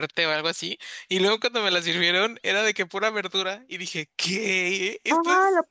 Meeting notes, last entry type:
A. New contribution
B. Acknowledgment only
A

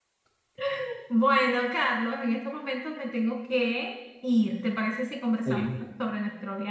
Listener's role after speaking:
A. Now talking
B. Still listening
B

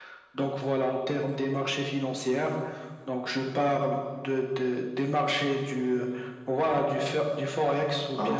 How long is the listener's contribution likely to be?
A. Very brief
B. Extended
B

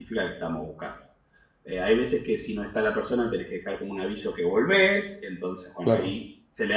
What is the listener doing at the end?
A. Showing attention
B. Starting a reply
A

